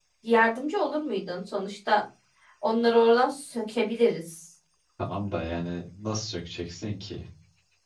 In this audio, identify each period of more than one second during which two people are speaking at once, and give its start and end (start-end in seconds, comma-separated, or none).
none